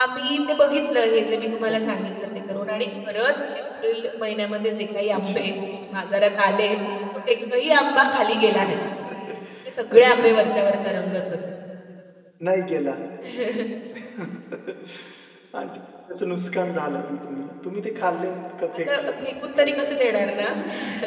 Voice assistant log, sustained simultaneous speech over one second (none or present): present